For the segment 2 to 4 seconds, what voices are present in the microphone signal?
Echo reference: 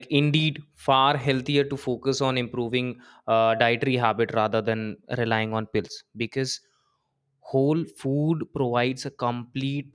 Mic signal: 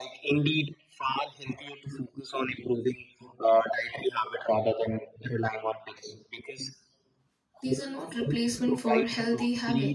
echo only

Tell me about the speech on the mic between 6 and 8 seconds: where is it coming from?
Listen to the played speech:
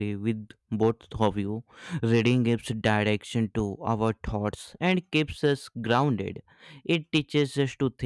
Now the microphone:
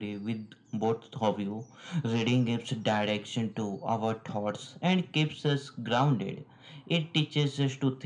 echo only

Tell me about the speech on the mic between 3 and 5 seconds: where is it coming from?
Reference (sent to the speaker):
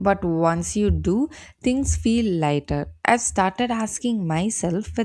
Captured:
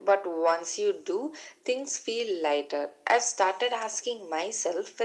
echo only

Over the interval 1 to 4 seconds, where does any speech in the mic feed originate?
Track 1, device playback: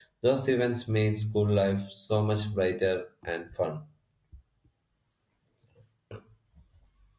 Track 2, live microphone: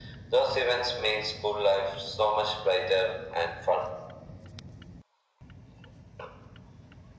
echo only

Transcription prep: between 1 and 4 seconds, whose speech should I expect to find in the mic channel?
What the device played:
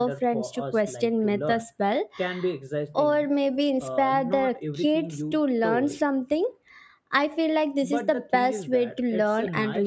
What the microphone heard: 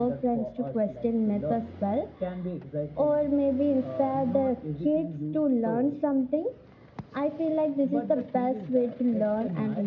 echo only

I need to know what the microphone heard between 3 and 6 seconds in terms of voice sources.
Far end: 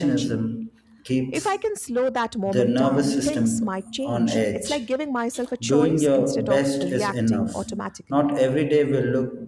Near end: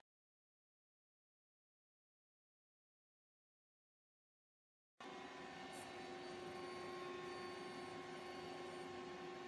neither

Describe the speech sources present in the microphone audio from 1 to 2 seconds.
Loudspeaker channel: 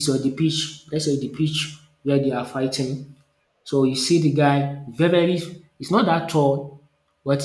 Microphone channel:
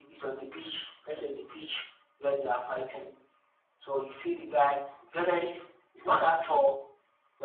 echo only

